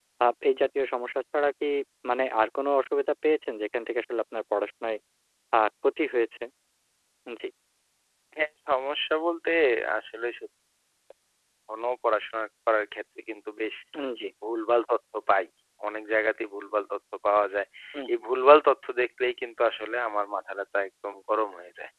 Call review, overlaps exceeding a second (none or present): none